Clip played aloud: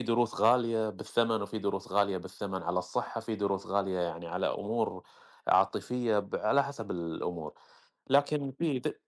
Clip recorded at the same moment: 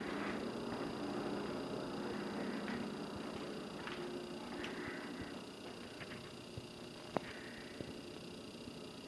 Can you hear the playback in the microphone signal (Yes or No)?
No